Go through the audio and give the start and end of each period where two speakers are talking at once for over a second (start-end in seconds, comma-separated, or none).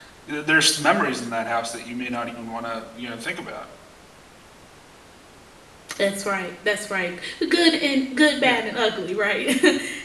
none